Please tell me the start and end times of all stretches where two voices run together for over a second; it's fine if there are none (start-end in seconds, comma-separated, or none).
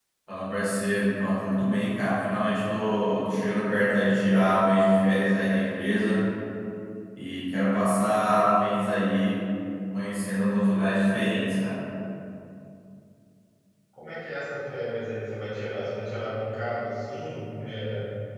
none